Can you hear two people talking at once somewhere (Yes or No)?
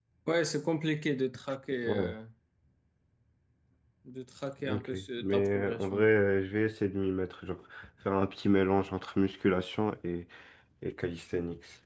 Yes